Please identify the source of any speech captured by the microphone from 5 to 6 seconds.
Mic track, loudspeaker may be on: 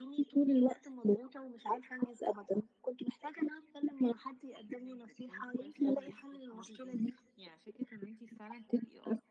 echo only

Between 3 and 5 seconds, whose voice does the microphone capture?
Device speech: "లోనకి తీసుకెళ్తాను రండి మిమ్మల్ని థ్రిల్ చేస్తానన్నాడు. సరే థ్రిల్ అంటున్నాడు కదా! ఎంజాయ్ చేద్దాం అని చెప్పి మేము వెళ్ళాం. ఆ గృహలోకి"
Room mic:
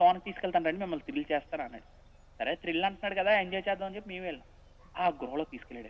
echo only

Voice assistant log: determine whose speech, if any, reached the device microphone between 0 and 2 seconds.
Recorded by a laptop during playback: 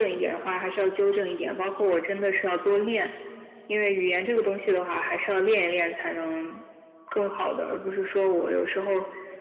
echo only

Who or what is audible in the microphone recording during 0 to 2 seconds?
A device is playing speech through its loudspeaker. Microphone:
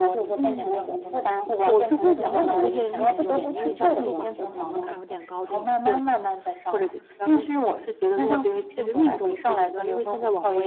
both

